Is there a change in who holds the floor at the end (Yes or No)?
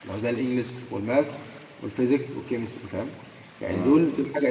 No